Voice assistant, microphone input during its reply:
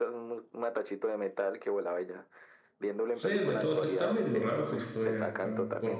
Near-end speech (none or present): present